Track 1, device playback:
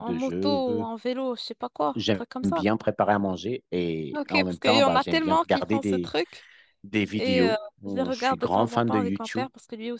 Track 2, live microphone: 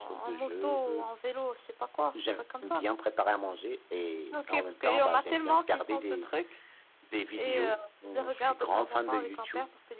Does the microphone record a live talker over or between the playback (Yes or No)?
No